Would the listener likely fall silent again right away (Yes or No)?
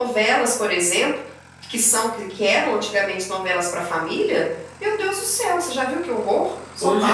No